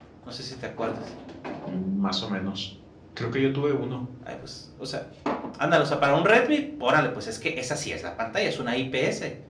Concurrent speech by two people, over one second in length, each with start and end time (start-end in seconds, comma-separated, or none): none